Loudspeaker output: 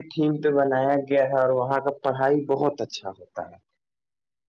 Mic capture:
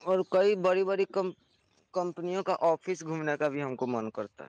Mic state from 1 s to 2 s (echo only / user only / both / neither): user only